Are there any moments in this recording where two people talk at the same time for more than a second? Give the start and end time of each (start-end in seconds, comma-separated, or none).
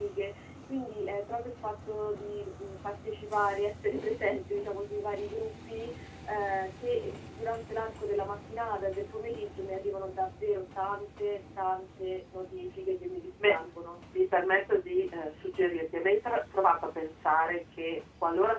none